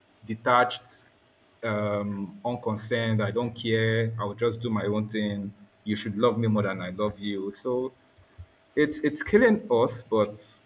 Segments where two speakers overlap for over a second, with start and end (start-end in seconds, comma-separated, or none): none